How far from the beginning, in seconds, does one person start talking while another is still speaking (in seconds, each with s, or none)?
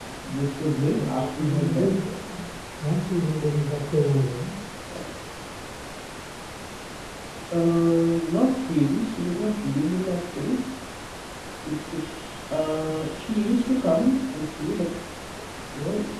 0.7 s